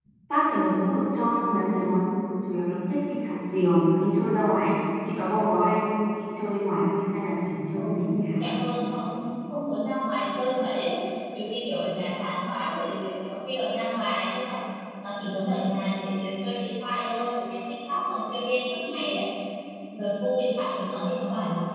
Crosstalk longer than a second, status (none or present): none